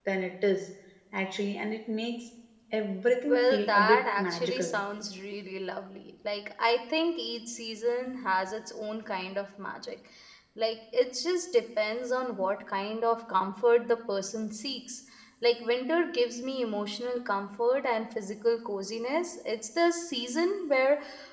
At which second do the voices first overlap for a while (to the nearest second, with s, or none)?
3 s